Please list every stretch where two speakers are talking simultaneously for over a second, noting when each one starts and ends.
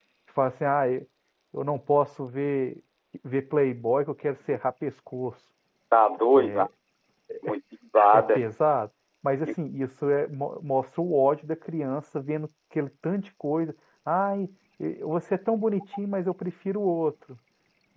none

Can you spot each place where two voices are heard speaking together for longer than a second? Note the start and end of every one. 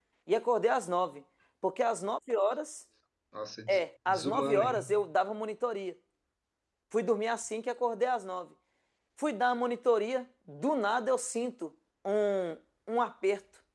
3.7-4.9

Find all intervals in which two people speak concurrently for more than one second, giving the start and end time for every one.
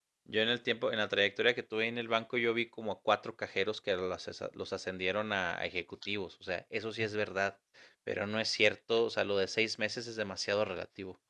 none

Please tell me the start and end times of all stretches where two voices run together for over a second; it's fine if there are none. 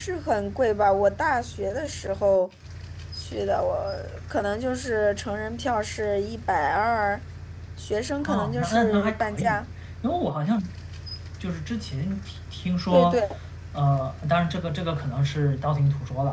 8.2-9.6

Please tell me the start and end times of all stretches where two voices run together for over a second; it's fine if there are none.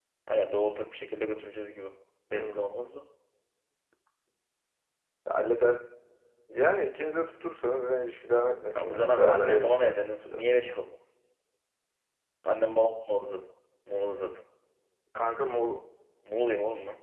8.8-10.4

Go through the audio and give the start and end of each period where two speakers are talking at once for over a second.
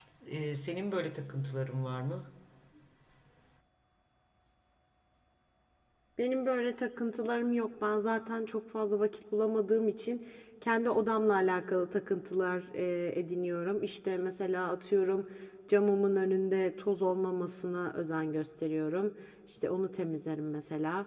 none

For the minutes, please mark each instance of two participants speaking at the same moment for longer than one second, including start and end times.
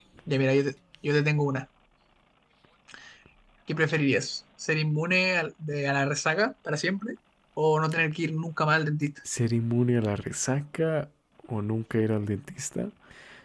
none

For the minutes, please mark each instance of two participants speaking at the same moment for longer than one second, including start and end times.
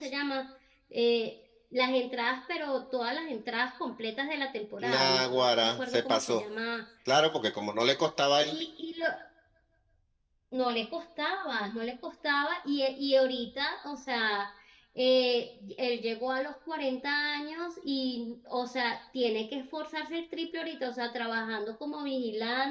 4.8-6.4

